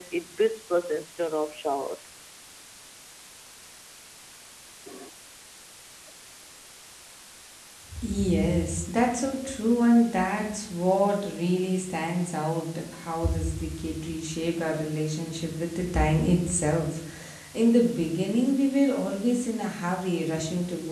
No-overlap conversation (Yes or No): Yes